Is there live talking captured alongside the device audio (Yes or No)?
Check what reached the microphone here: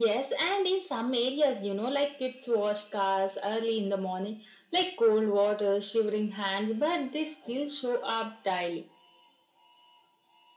No